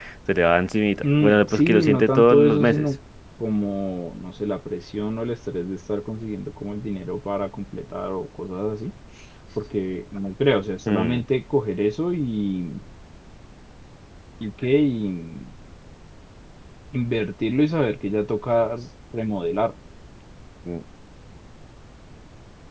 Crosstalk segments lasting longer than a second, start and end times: 1.2-2.9

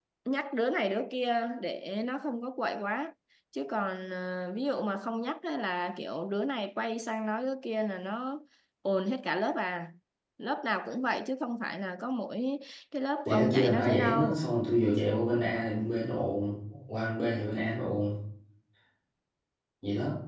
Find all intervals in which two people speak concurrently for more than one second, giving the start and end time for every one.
13.2-14.4

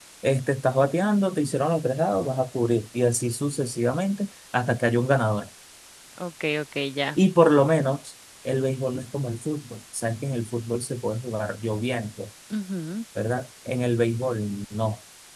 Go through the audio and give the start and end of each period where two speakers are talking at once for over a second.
none

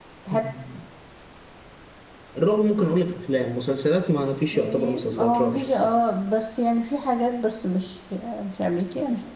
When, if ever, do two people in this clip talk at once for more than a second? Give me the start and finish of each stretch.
4.5-5.9

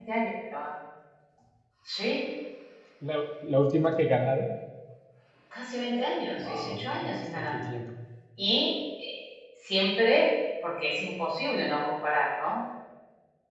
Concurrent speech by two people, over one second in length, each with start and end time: 6.4-7.6

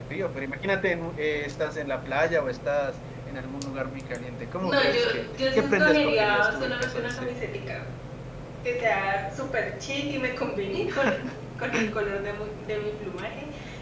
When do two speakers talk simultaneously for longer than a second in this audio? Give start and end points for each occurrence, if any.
4.6-7.4

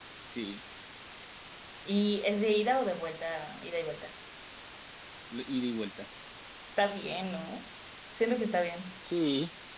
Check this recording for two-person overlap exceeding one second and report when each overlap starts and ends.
none

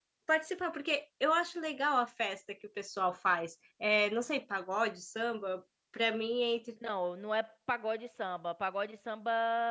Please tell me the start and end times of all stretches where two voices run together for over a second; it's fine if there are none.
none

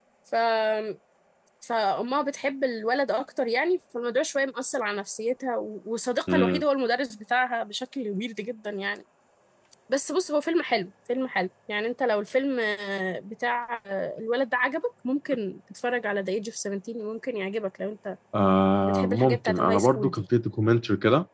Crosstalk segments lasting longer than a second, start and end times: 18.8-20.2

